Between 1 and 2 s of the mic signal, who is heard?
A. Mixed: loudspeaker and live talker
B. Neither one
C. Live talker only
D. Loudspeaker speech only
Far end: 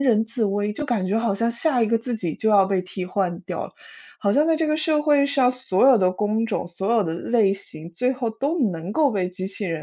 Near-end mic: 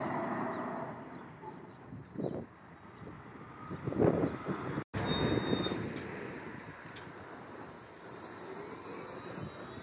B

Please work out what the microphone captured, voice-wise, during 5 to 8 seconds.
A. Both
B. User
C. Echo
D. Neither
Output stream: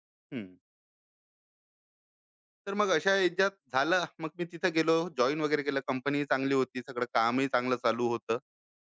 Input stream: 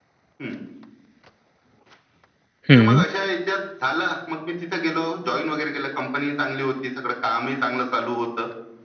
C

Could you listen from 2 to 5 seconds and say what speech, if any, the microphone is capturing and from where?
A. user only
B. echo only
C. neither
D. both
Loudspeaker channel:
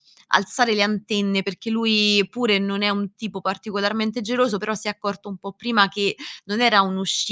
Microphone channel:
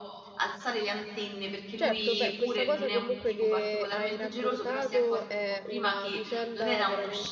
D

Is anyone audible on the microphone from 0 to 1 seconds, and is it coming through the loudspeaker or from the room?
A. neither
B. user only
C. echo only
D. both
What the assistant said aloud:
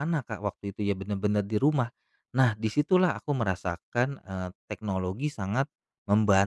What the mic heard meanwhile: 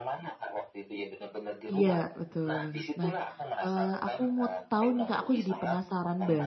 C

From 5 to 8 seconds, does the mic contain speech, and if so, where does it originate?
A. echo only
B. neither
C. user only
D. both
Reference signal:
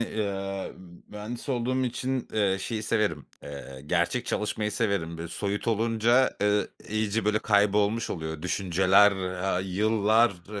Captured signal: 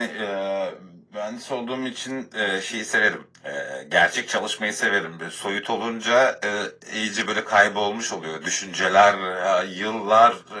A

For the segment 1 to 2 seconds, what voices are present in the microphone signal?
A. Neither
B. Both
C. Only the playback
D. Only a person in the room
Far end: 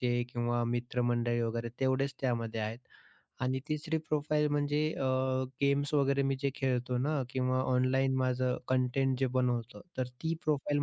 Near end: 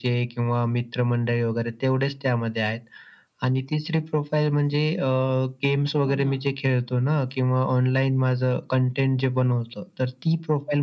C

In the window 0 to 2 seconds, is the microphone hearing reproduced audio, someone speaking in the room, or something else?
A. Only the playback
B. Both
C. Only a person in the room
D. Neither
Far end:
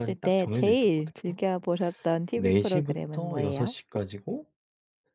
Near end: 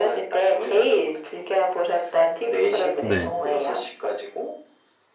A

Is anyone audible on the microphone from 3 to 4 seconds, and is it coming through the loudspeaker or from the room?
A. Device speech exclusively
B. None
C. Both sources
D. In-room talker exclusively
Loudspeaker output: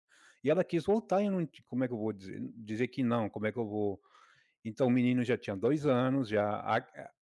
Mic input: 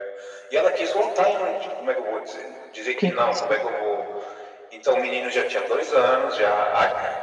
C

